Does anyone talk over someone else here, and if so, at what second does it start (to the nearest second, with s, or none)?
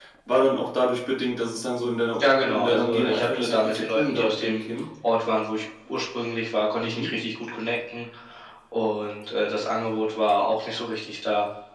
2 s